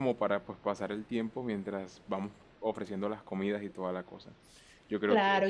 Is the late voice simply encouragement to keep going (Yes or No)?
No